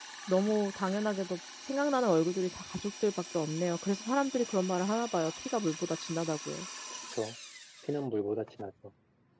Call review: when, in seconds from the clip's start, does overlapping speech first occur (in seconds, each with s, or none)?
none